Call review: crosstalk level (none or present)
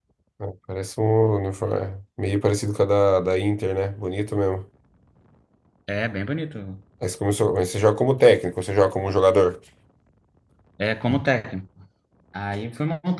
none